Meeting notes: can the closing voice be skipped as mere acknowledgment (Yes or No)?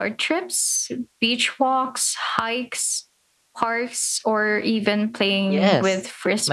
No